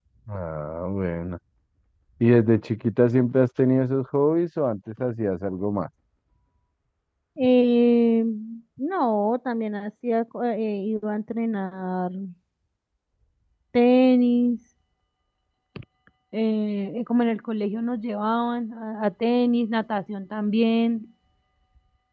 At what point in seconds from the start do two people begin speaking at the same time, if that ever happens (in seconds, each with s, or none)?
none